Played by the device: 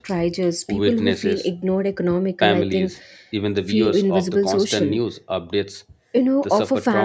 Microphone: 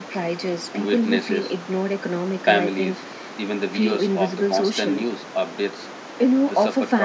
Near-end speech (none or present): none